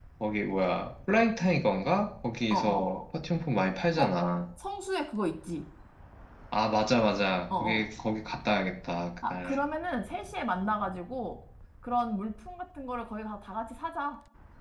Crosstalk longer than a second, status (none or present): none